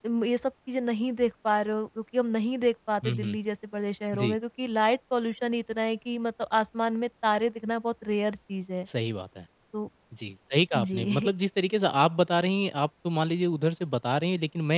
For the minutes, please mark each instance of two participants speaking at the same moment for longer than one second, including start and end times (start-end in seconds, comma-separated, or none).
none